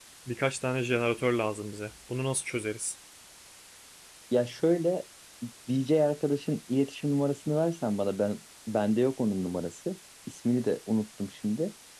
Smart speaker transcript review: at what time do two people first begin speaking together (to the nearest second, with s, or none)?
none